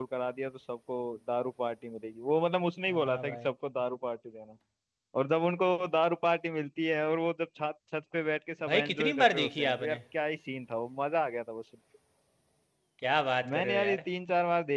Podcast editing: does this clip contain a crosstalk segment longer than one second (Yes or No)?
Yes